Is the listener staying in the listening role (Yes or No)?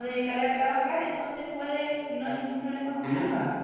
No